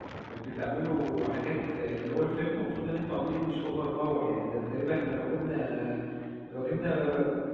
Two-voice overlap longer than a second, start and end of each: none

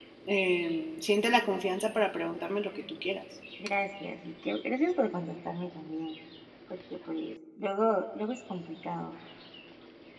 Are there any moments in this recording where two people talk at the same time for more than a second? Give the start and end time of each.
none

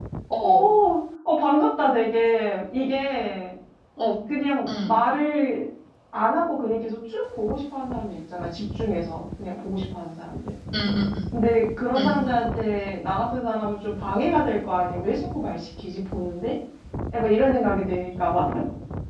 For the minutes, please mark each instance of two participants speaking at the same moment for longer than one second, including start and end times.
none

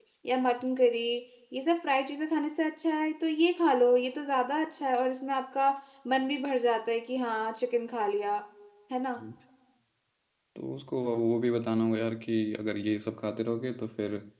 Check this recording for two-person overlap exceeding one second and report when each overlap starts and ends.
none

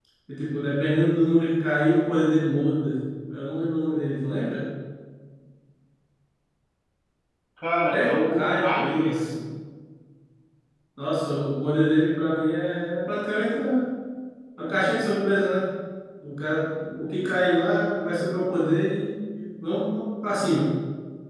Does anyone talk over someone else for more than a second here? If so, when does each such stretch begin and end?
7.9-9.2

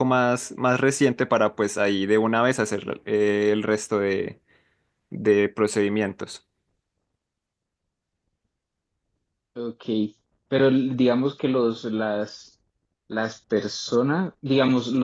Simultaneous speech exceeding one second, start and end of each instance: none

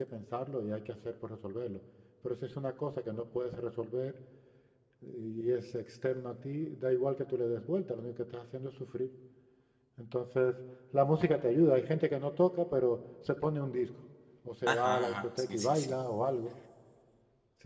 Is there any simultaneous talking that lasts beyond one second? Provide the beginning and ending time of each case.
14.6-15.9

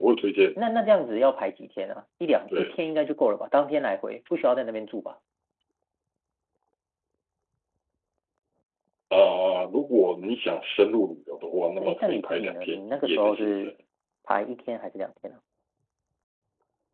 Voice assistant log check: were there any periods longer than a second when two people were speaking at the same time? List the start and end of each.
11.8-13.7

